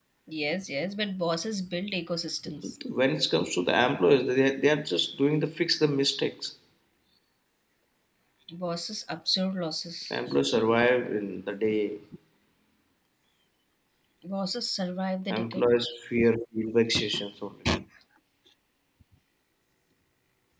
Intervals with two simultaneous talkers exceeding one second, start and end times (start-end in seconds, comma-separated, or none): none